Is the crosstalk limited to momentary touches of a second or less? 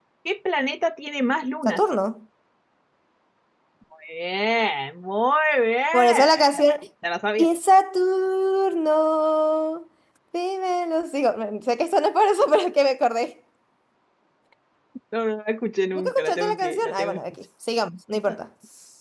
No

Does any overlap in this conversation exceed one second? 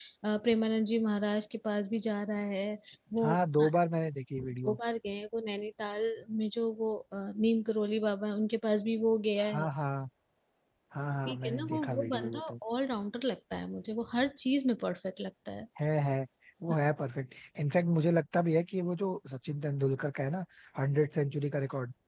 Yes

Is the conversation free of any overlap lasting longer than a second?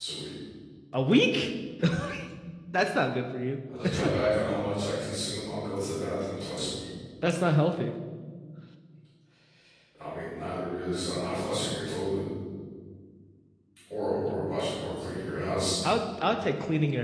Yes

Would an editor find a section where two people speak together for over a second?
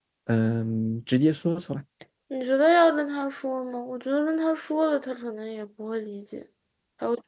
No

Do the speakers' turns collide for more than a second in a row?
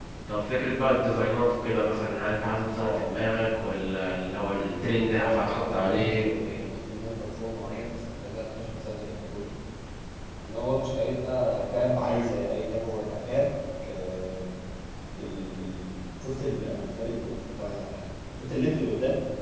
Yes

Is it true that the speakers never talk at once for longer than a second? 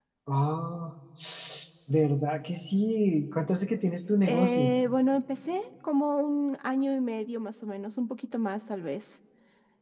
Yes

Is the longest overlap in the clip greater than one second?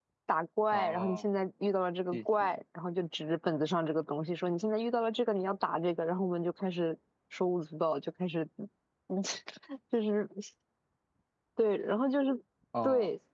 No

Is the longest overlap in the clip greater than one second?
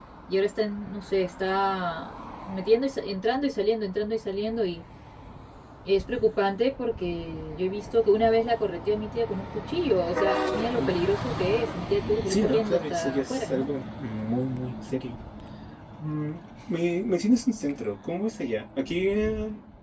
Yes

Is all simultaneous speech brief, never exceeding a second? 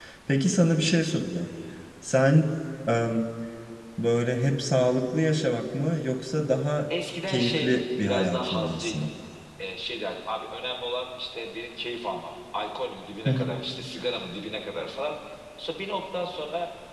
No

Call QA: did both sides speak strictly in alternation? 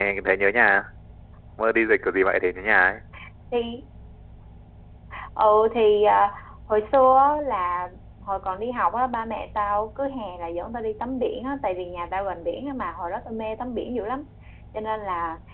Yes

